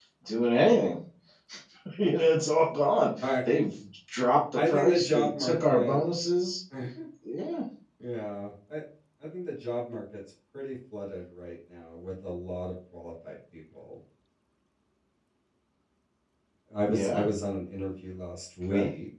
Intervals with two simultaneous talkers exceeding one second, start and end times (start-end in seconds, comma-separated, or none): 4.6-6.0